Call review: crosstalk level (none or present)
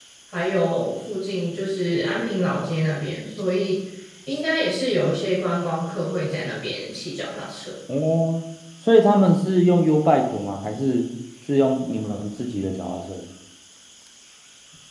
none